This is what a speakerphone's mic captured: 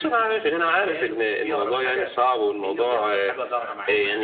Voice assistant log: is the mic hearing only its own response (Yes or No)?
No